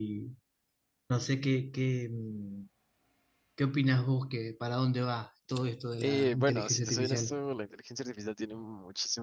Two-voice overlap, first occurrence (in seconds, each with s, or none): 6.0 s